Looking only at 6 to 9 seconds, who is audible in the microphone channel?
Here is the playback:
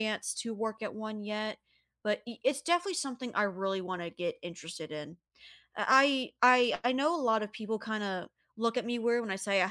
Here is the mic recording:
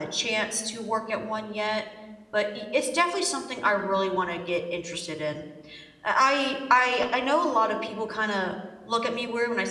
echo only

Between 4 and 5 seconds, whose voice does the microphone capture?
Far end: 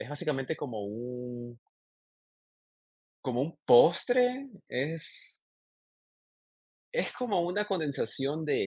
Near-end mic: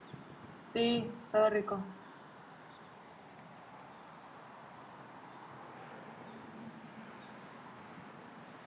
neither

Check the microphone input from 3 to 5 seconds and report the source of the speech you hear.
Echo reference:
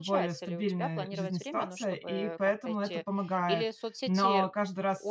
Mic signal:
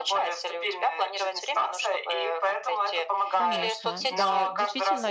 both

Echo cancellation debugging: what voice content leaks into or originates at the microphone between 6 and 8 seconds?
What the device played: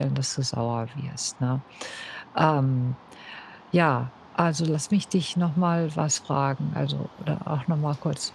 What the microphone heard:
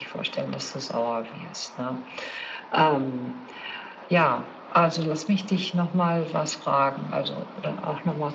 echo only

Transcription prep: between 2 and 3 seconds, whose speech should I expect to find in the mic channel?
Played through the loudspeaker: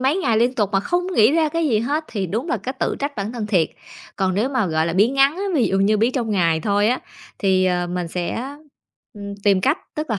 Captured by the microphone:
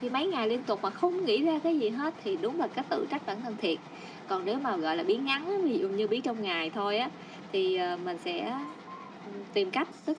echo only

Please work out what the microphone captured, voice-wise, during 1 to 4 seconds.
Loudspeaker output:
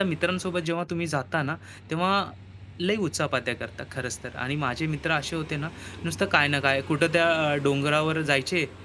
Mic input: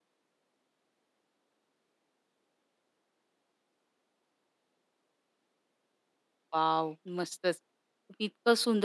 neither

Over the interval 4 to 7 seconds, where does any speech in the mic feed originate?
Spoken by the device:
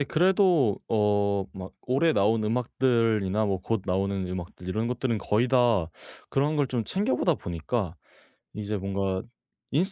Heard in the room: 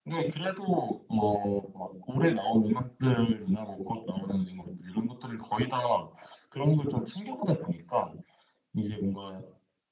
echo only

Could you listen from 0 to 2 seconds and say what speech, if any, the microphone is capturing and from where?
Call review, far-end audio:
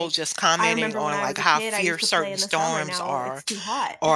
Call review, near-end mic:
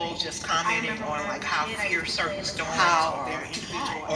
echo only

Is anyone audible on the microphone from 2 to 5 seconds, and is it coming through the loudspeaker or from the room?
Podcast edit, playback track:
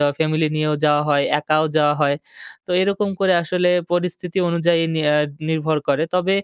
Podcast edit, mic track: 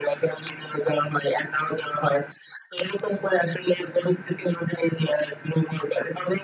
echo only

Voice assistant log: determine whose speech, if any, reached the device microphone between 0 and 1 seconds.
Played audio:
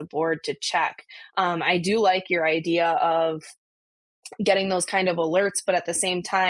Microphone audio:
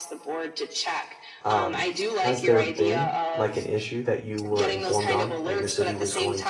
echo only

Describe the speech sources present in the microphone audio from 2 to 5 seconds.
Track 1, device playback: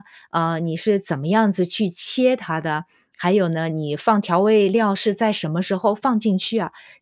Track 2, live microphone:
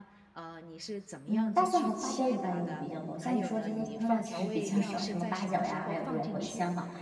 both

